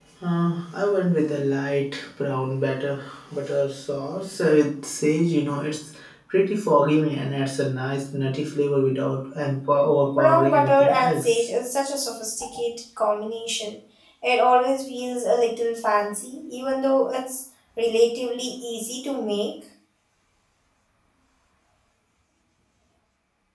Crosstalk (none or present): present